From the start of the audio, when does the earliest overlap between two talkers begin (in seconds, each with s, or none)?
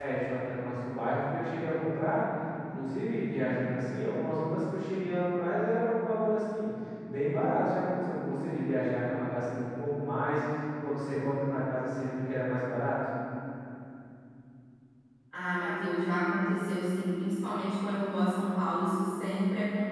none